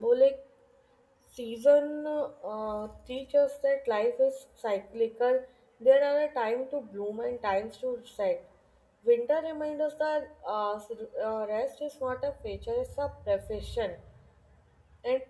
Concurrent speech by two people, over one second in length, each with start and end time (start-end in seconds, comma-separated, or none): none